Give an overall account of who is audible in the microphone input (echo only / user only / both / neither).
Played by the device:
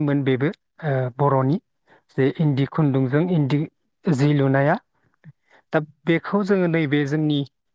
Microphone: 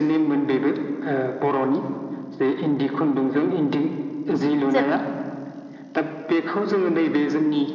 both